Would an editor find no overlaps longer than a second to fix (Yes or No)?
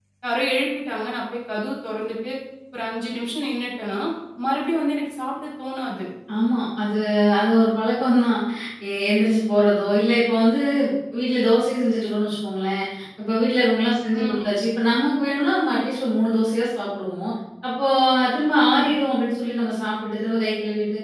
Yes